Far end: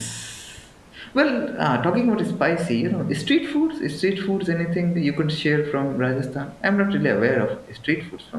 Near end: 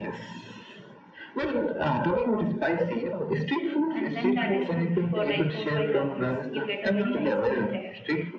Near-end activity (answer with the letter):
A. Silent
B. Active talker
B